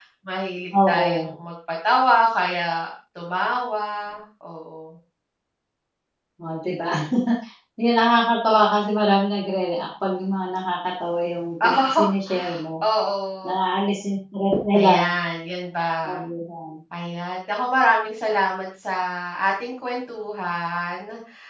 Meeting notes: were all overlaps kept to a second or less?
Yes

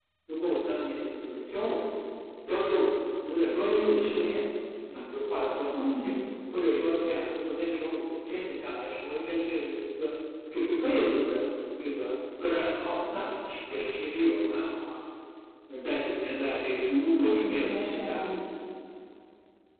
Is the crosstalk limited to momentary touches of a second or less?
No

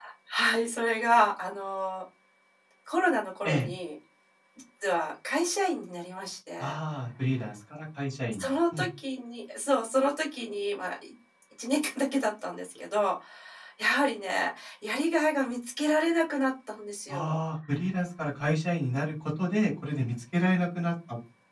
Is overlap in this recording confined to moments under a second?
Yes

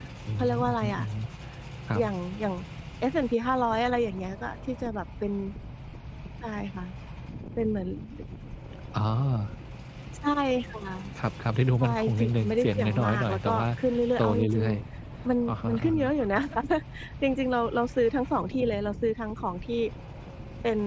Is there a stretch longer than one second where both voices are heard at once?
Yes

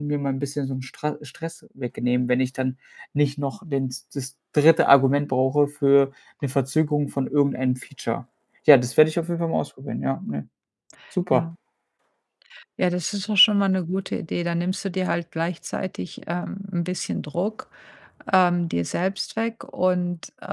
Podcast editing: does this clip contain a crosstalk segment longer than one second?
No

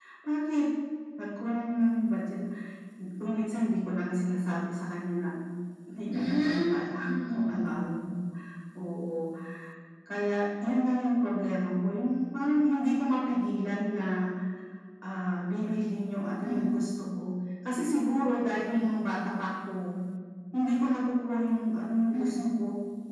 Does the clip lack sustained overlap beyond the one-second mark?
No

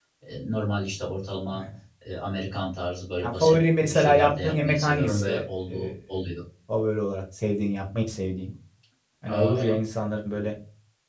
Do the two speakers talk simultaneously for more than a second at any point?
Yes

